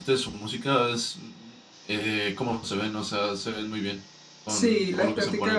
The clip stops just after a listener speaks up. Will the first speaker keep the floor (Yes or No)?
No